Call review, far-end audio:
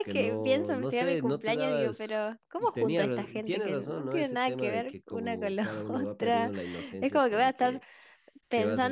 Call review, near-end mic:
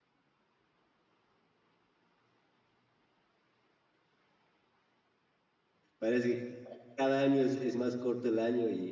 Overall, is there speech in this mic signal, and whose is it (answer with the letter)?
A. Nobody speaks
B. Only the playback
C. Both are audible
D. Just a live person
D